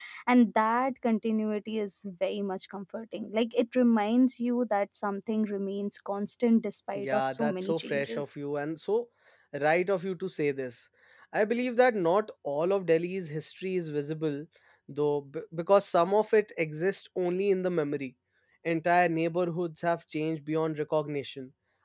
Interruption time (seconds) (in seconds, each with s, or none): 7.0 s